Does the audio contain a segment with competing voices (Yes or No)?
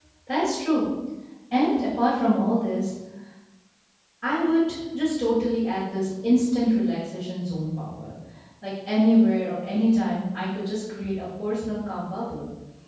No